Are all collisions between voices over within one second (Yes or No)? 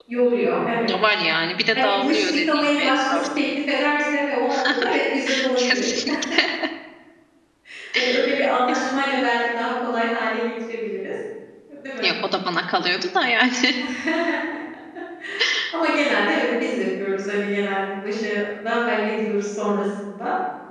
No